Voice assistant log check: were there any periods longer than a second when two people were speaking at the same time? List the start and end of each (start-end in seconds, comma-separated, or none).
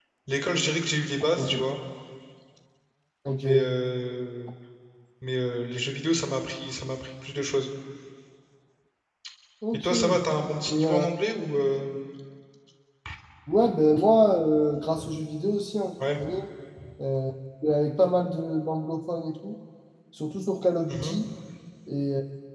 none